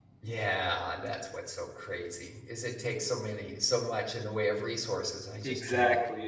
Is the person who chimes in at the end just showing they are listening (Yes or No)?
No